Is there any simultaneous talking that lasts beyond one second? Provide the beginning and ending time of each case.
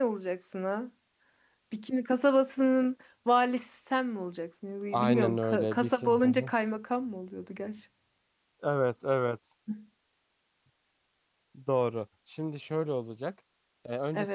4.9-6.5

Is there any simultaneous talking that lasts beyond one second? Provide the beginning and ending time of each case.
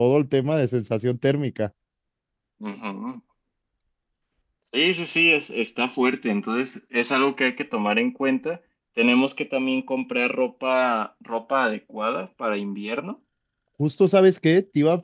none

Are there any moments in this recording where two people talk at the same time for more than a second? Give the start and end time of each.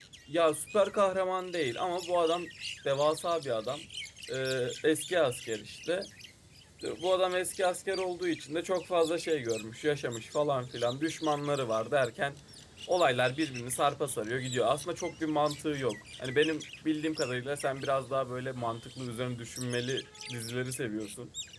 none

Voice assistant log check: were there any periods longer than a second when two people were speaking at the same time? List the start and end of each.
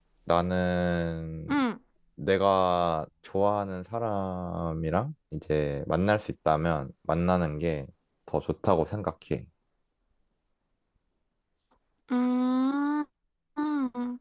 none

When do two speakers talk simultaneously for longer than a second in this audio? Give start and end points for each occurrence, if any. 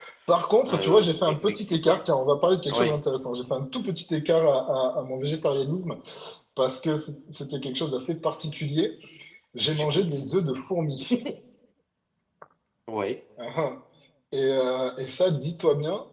0.7-2.0

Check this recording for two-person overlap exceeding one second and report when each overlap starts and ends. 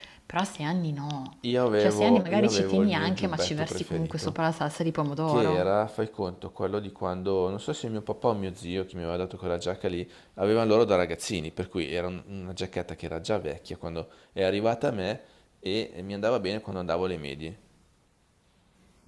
1.8-4.3

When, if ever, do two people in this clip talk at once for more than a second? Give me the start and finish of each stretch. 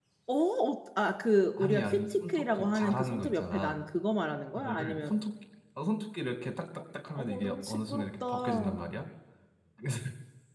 1.6-3.8, 7.2-8.8

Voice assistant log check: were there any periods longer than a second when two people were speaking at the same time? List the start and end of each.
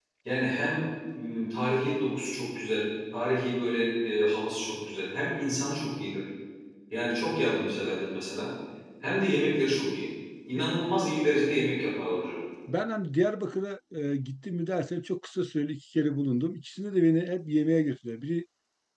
none

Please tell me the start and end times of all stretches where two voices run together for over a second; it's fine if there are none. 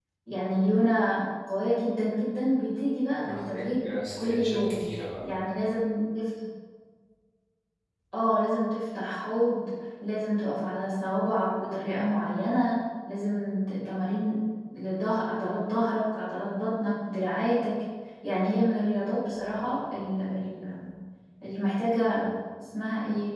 3.2-4.8

